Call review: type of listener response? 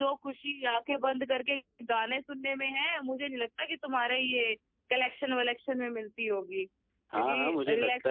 taking over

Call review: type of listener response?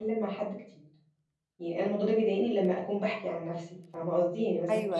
listening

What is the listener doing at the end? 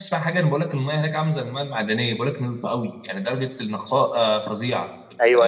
taking over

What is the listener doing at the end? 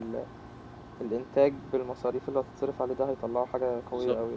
taking over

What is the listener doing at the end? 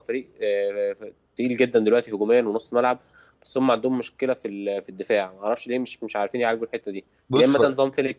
listening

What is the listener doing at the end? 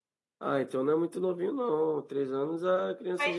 taking over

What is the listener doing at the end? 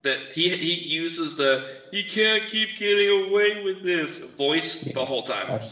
taking over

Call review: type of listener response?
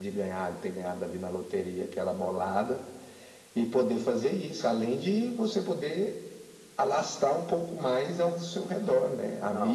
listening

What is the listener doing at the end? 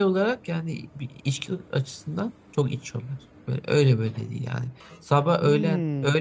listening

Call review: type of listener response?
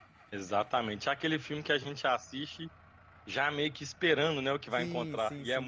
taking over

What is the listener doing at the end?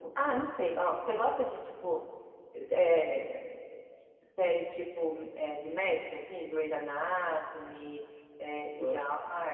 taking over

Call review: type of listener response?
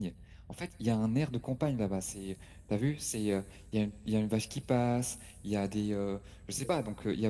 listening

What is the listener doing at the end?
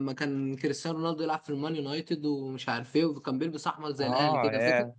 taking over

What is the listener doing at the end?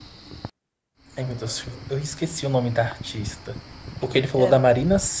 listening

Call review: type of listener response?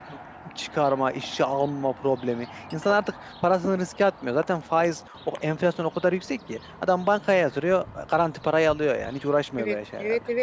taking over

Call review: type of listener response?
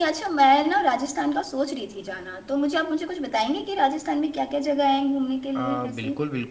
taking over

